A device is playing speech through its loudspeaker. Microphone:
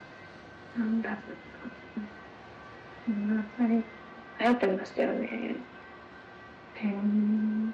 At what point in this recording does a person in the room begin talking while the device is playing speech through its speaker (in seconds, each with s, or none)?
none